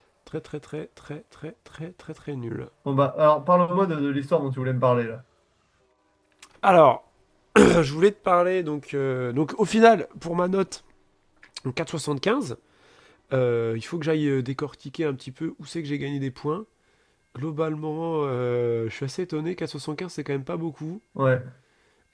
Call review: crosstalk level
none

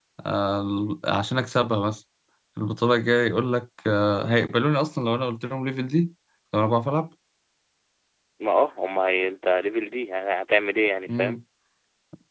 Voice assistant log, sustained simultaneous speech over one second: none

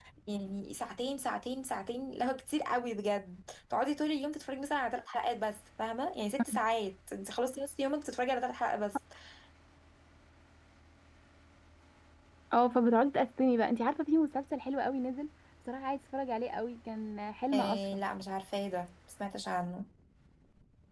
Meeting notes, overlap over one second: none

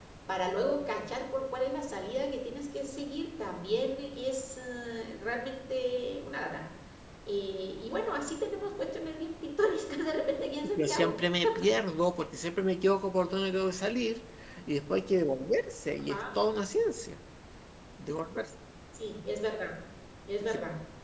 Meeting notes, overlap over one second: none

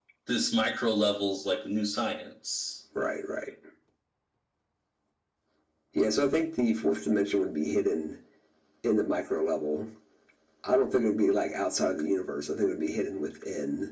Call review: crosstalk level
none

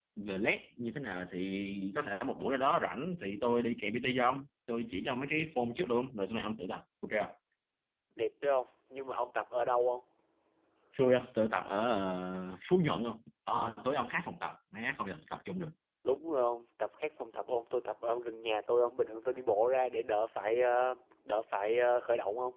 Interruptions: none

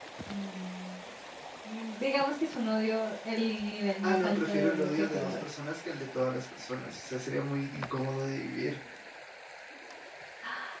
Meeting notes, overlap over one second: present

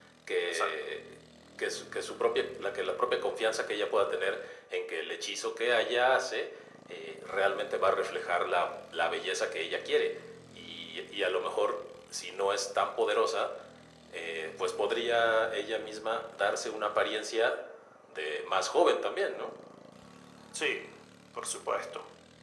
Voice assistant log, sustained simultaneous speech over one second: none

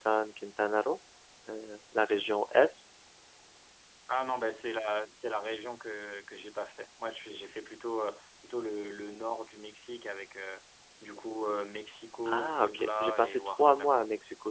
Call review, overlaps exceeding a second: present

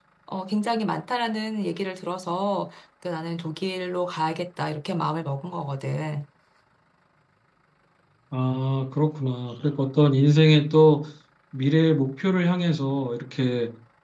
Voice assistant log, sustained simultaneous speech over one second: none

